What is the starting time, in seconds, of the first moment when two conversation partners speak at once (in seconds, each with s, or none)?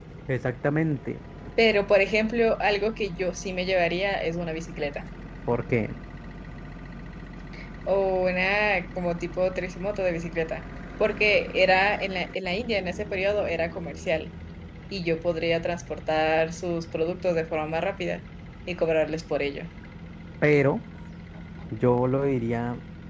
none